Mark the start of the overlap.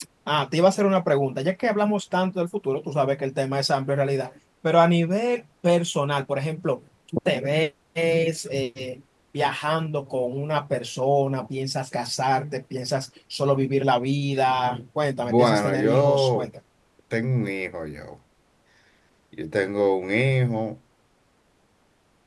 15 s

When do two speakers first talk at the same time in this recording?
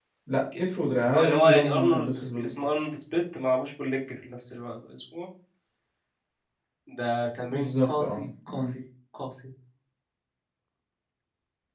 1 s

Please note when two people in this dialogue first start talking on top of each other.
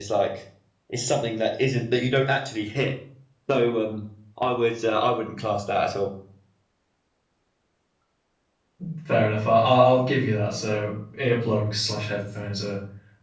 none

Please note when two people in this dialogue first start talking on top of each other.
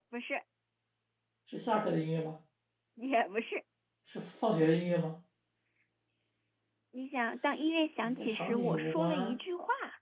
8 s

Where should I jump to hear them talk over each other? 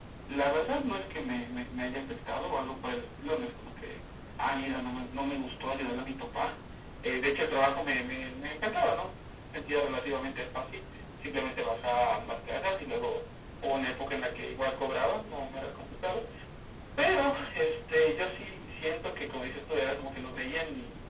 none

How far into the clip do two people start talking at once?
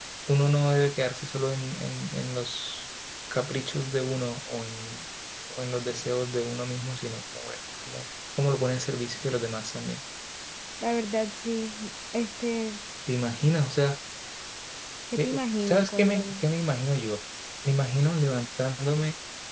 15 s

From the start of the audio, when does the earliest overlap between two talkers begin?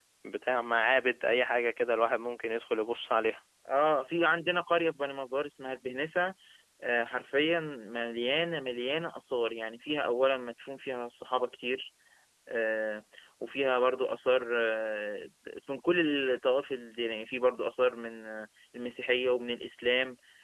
none

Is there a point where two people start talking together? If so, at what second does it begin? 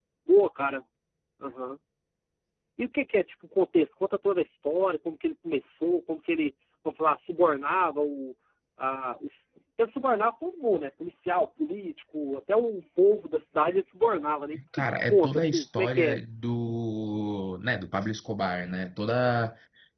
15 s

